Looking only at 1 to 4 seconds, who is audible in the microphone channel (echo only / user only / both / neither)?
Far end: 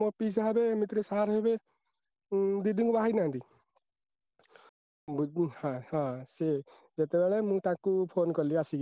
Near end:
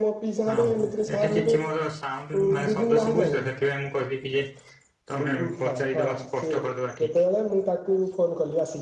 both